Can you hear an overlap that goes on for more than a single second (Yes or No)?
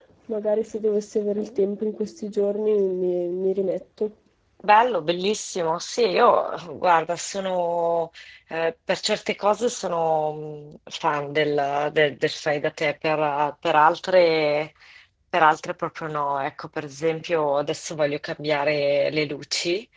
No